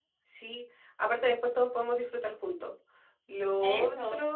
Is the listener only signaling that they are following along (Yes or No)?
Yes